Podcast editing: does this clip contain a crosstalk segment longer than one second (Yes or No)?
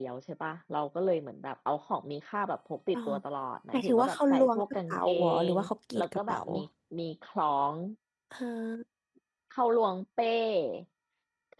Yes